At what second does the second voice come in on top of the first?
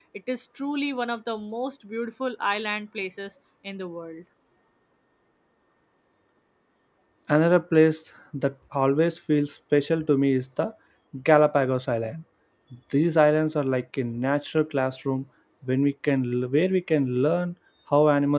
none

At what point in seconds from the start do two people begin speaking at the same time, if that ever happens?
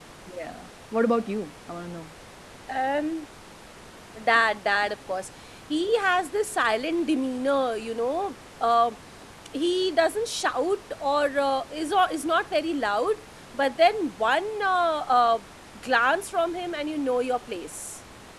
none

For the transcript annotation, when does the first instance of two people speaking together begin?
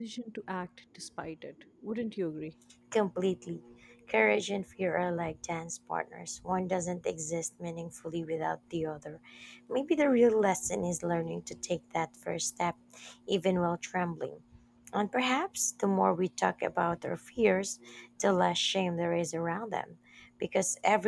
none

